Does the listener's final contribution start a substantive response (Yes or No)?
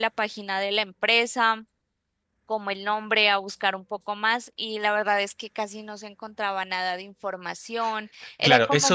Yes